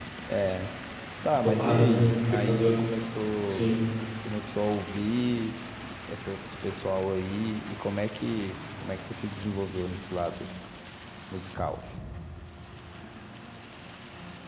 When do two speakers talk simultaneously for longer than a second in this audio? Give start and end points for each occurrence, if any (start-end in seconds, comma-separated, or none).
1.4-2.8